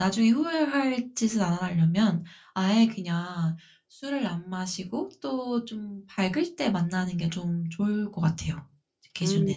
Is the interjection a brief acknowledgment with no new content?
No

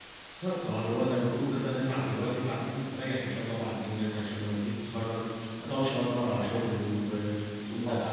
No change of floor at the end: No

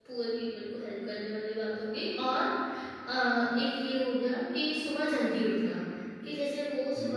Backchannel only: Yes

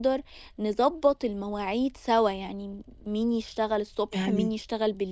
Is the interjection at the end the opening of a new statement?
No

